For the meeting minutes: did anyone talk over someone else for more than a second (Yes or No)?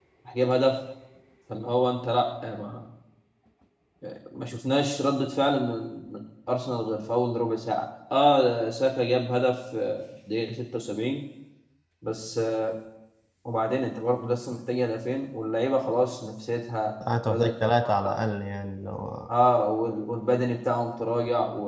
No